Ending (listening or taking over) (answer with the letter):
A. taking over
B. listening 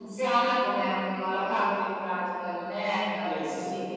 A